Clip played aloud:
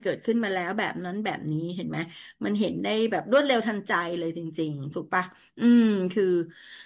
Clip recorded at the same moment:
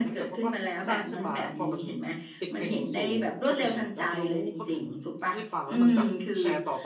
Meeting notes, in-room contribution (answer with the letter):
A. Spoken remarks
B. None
A